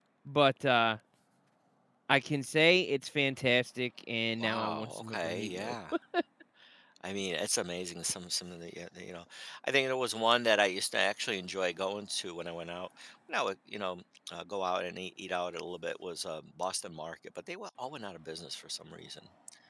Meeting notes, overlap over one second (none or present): present